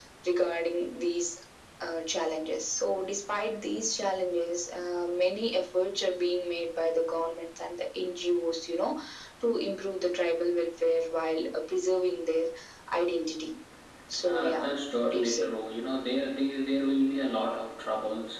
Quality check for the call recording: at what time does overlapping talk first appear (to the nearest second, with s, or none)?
14 s